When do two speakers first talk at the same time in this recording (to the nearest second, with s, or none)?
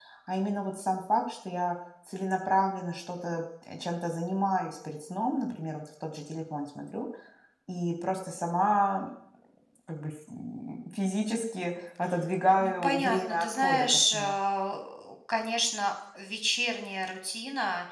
13 s